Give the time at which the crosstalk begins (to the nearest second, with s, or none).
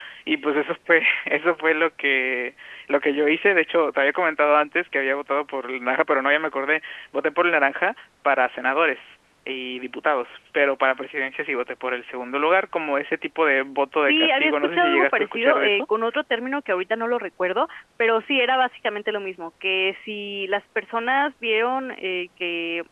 14 s